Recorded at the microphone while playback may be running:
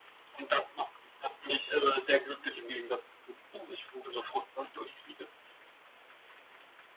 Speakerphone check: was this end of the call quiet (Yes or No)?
Yes